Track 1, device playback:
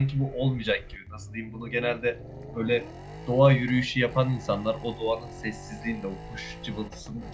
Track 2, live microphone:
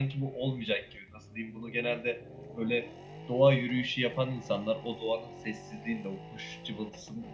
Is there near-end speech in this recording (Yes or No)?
No